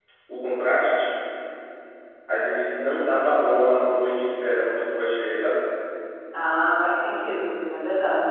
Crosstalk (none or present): none